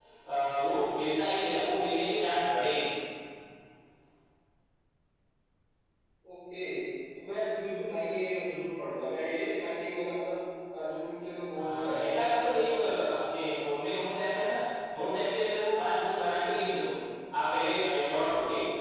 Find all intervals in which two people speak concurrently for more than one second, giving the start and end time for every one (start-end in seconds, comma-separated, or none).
11.5-13.2